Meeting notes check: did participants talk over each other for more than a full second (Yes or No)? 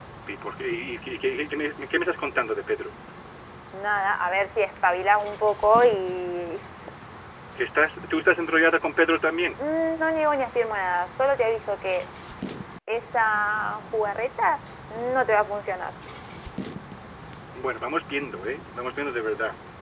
No